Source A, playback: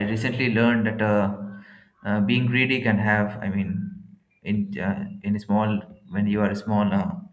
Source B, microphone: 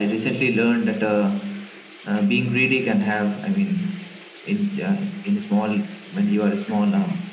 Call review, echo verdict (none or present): present